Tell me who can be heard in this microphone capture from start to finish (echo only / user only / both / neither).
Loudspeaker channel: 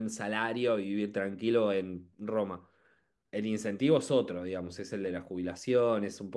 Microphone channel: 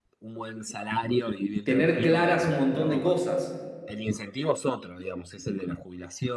both